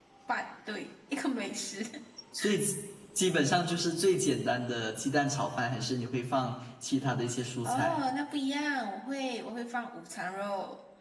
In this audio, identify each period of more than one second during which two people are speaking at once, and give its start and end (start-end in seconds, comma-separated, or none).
none